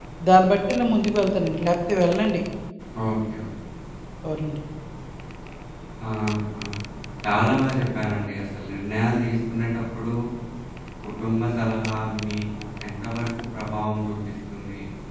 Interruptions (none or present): none